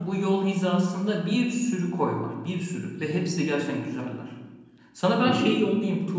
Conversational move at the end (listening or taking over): listening